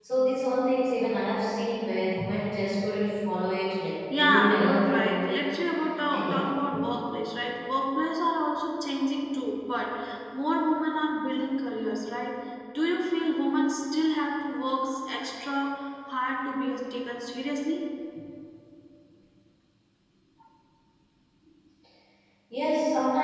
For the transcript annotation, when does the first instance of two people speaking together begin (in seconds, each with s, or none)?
4.1 s